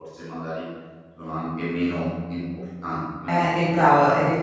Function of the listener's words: taking over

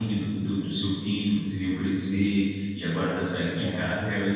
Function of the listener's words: listening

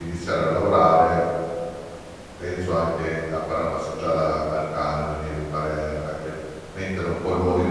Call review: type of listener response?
taking over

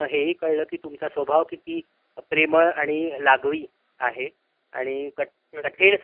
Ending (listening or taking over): listening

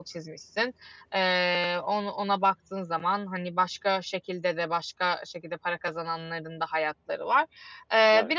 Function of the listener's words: listening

